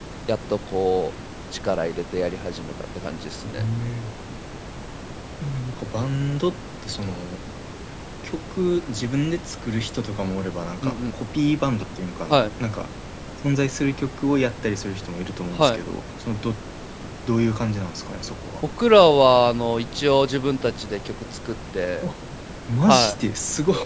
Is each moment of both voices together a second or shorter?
Yes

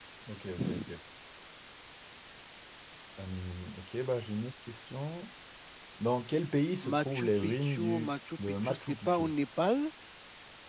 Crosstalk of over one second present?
Yes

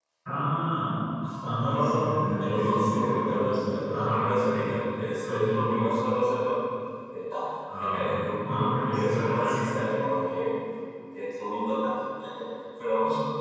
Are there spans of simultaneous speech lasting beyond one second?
Yes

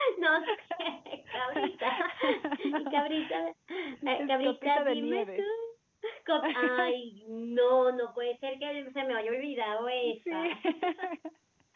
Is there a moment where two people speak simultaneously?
Yes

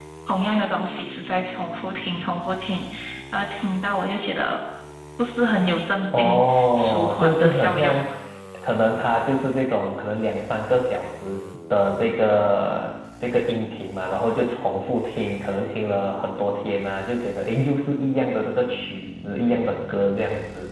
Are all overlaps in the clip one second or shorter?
No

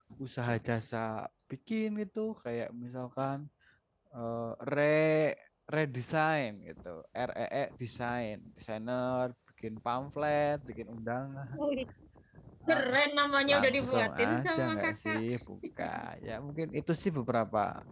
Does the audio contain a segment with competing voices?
Yes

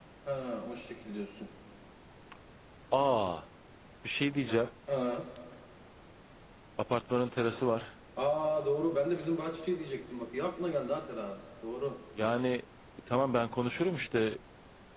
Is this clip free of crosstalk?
Yes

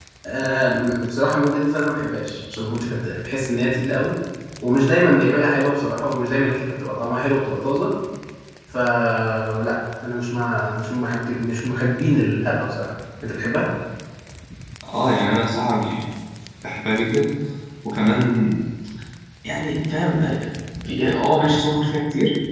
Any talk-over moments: No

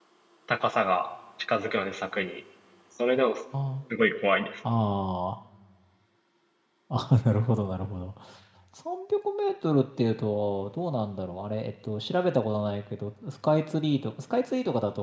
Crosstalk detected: No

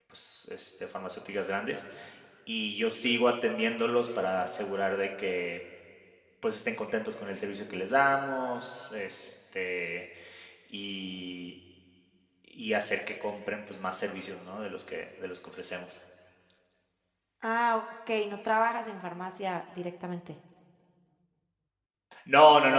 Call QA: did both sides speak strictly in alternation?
Yes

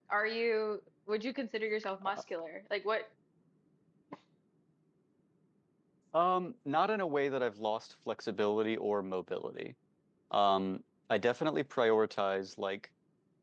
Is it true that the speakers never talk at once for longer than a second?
Yes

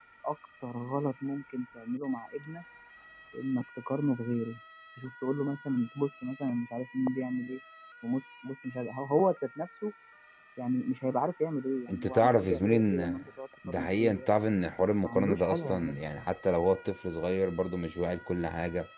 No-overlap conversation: No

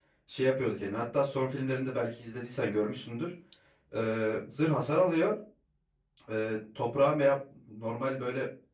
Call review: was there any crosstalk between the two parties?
No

